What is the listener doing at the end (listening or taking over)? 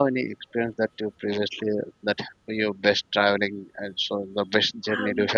taking over